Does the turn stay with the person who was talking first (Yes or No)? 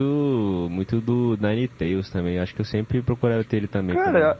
No